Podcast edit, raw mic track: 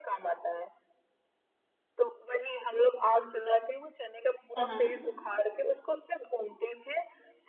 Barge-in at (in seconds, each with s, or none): 4.5 s